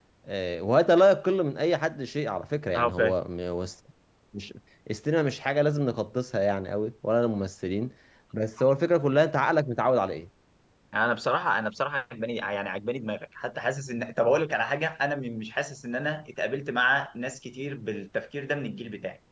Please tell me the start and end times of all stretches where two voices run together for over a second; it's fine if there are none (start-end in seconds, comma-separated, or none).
none